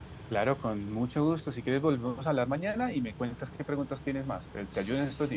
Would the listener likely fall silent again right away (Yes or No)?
No